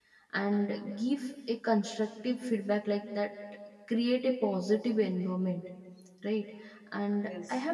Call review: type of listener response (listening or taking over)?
listening